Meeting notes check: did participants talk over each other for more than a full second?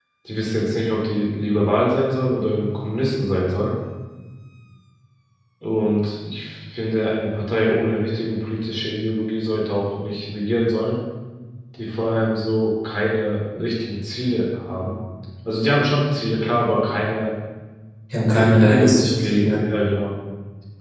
Yes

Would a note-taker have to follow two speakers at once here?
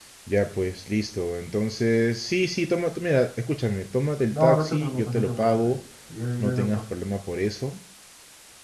Yes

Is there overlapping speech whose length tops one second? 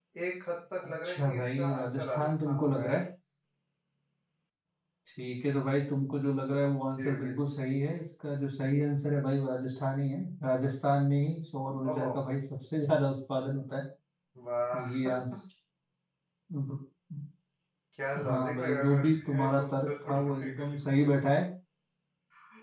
Yes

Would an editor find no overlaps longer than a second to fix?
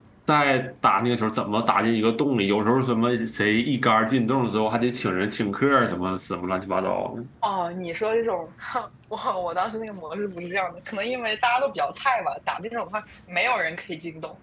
Yes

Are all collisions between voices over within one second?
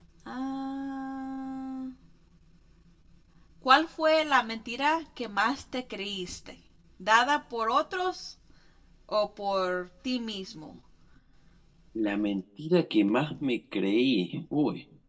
Yes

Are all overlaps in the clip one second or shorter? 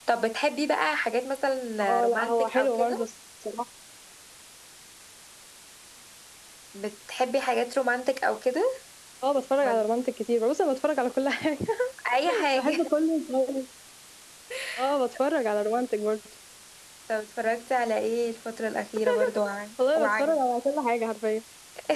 No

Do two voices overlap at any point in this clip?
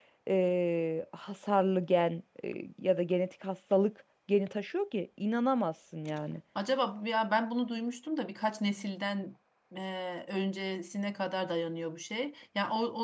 No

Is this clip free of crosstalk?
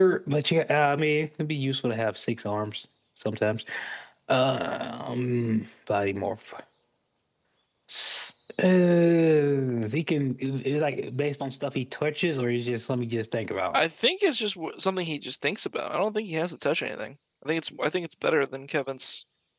Yes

